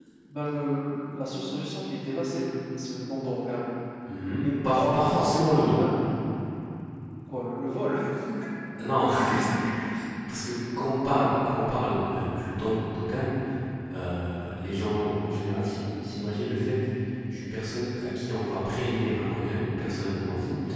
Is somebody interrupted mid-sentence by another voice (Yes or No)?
Yes